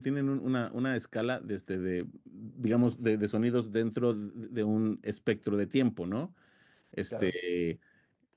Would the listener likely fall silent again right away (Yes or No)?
Yes